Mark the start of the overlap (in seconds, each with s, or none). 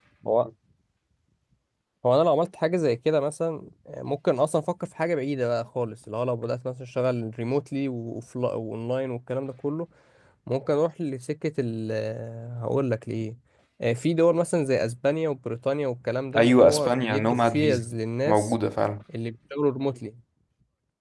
16.4 s